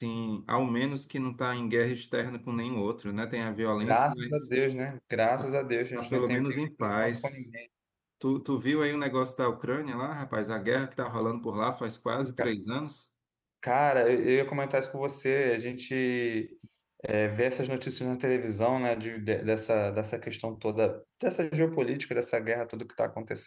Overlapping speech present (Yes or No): Yes